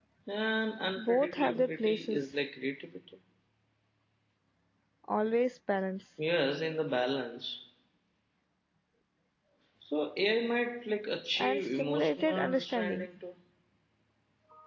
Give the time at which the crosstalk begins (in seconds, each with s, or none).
1.0 s